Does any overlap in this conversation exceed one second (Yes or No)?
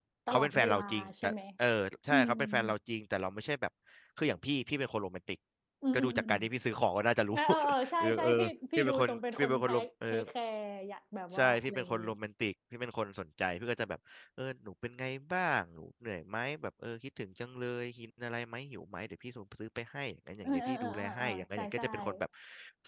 Yes